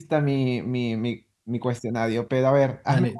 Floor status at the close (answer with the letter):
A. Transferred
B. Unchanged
A